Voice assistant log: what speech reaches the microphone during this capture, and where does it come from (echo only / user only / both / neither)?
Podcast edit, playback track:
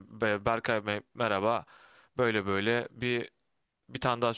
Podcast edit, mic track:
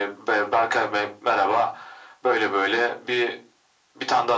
echo only